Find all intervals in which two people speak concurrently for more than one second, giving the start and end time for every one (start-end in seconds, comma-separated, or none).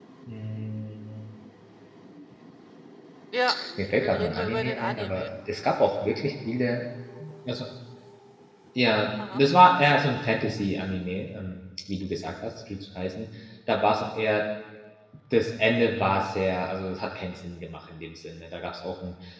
3.8-5.3